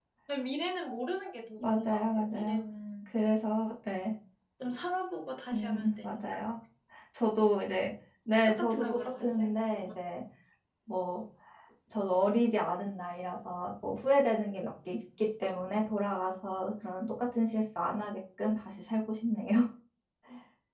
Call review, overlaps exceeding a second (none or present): present